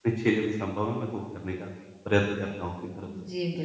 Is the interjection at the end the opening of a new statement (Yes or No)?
Yes